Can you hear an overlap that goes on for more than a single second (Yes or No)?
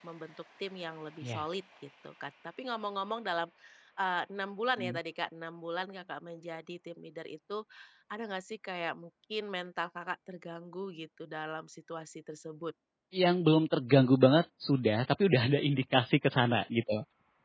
No